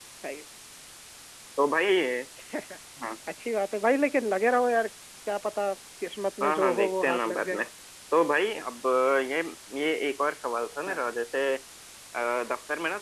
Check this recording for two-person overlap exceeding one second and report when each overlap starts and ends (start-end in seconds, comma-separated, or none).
6.4-7.6